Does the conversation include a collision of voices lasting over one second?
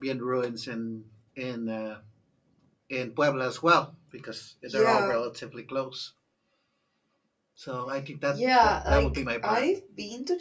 Yes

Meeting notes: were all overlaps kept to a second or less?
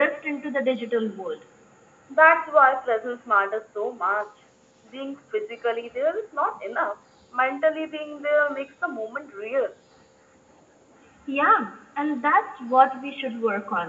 Yes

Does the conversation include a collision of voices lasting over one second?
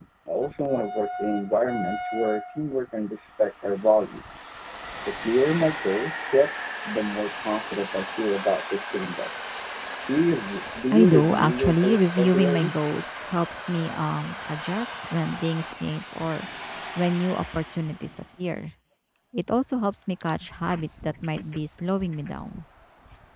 Yes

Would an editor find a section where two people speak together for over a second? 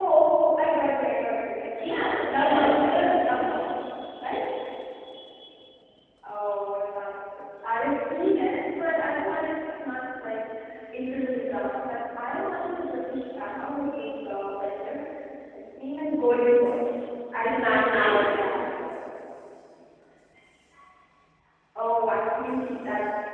Yes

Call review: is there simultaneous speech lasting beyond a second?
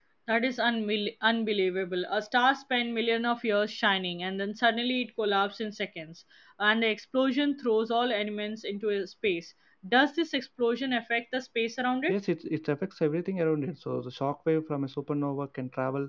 No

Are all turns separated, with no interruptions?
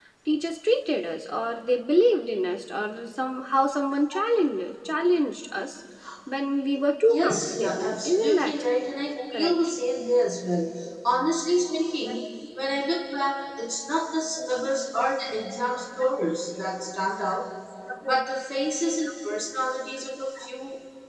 No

